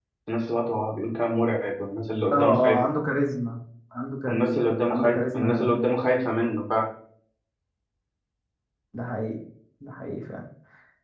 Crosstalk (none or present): present